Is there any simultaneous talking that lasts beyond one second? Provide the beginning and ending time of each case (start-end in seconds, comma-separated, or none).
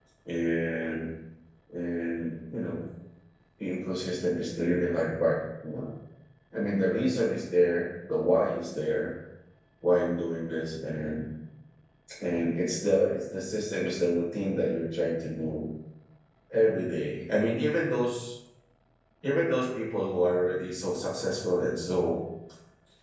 none